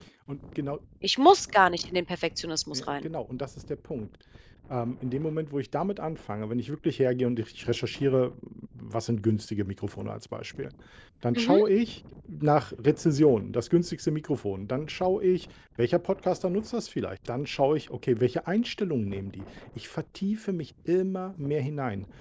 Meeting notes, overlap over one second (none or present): none